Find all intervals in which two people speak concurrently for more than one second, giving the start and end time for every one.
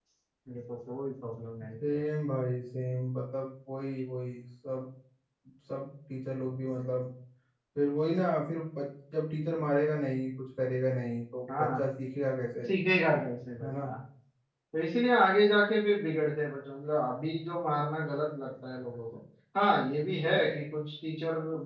none

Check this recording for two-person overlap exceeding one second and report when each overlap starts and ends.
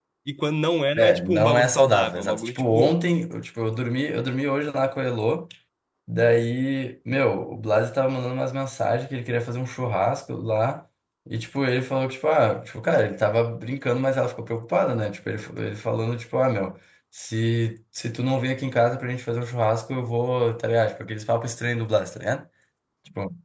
1.0-2.9

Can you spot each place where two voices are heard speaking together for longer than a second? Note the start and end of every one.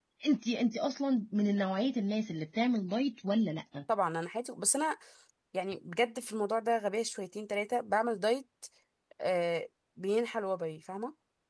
none

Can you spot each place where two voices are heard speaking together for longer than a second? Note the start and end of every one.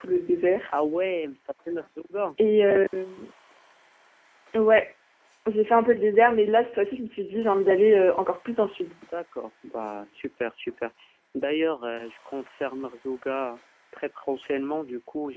none

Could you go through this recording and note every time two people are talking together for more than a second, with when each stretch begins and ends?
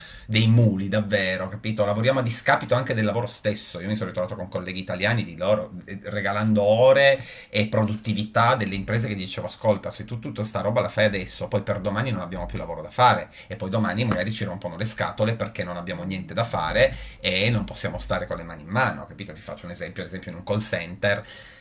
none

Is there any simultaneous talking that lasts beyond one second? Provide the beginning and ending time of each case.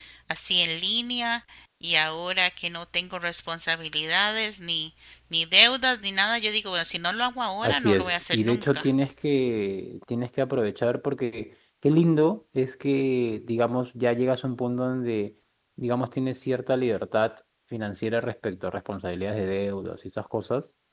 7.6-8.9

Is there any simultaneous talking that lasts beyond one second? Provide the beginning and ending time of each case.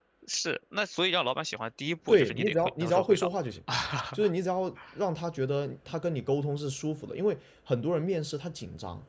2.1-3.3

